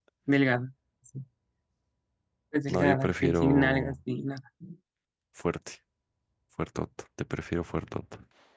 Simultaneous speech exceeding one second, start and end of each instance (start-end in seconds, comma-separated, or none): 2.7-4.0